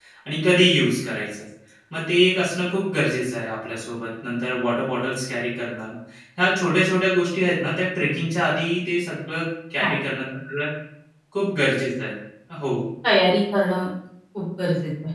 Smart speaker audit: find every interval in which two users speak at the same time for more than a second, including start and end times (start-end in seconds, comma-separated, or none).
none